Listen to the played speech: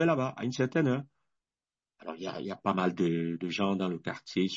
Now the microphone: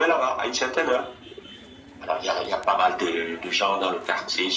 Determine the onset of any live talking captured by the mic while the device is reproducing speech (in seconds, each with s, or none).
none